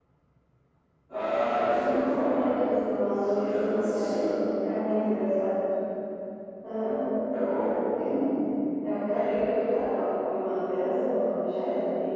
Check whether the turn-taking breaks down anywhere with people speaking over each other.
Yes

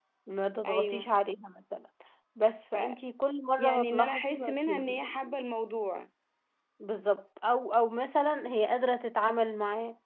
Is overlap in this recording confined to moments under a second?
No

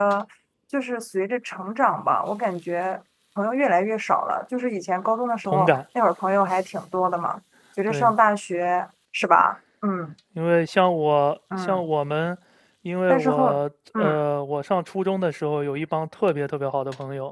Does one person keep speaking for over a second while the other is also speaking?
No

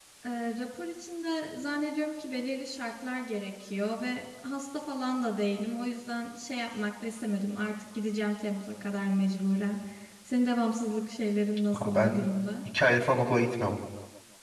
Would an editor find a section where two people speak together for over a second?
No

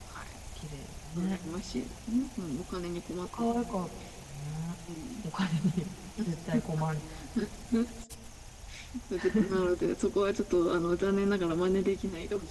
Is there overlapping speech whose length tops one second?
No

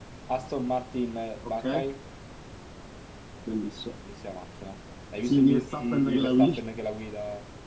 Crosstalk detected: Yes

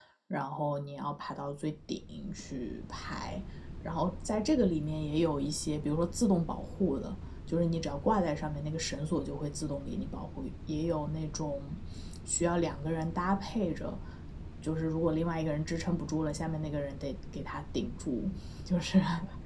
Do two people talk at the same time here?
No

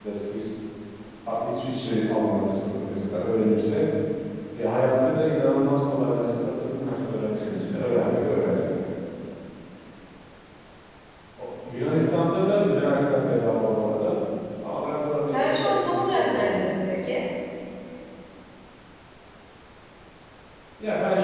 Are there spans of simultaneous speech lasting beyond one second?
Yes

